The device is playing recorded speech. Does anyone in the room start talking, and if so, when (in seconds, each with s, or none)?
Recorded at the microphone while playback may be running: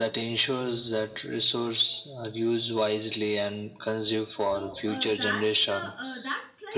4.4 s